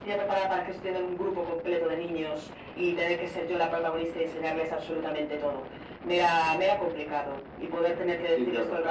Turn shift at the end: No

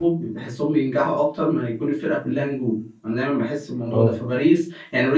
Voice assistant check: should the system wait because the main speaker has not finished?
Yes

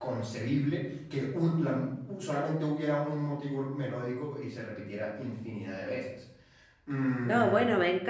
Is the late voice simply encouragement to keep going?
No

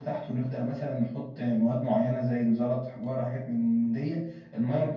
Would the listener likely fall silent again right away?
No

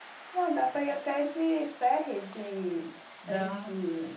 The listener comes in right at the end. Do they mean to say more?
No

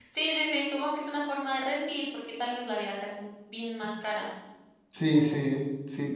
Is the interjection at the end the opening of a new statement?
Yes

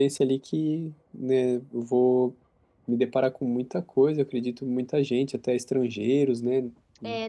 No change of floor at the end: No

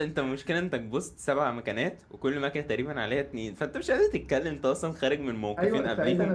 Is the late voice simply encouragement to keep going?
No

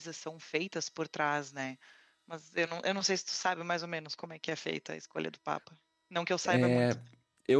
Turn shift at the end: Yes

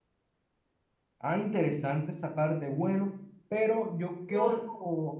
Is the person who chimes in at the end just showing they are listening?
Yes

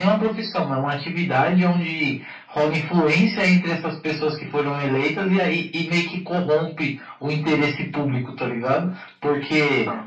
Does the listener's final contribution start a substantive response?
No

